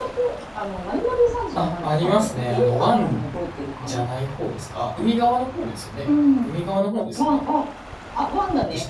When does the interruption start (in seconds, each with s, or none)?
1.5 s